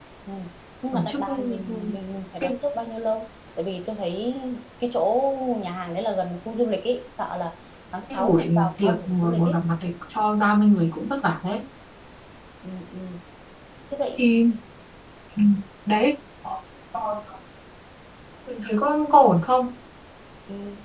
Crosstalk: present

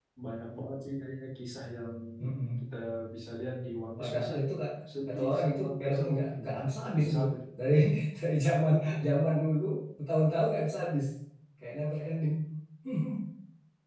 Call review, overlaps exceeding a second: present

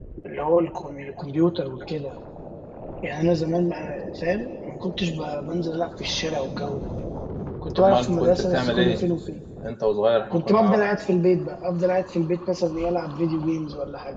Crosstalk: present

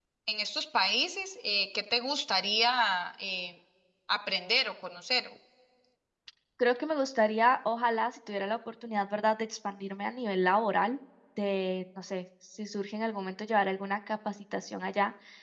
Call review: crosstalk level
none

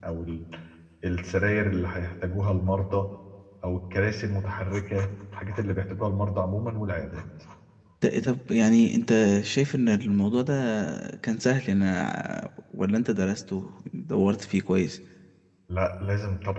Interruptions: none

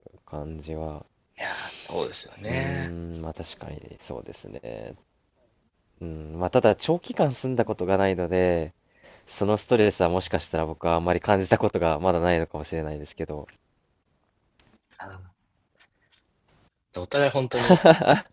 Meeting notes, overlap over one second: none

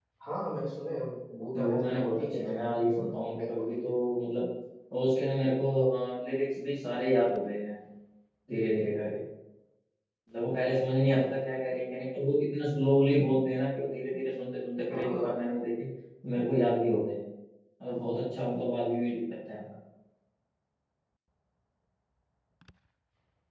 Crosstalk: present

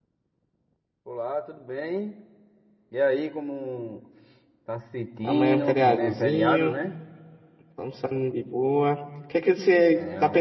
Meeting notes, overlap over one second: present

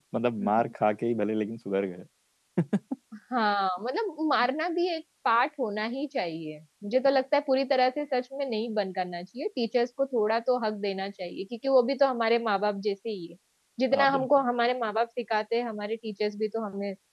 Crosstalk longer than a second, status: none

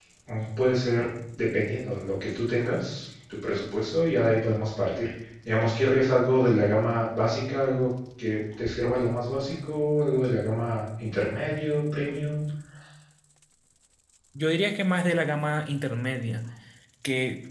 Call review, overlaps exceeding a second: none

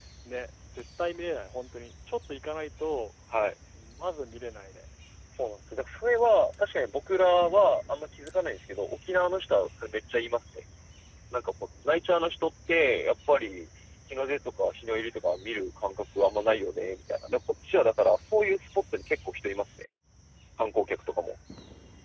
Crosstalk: none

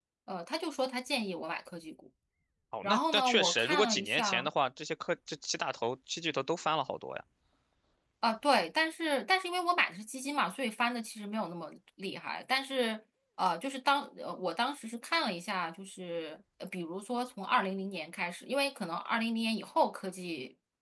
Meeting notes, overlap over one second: present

